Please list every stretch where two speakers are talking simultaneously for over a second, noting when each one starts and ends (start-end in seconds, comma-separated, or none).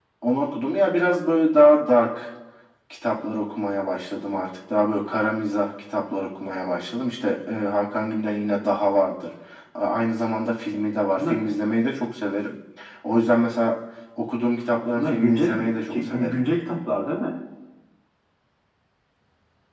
15.0-16.4